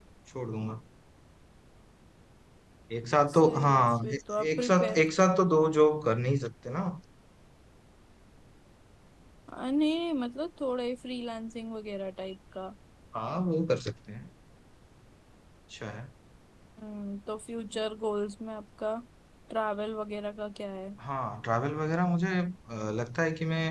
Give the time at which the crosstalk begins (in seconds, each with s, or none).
3.3 s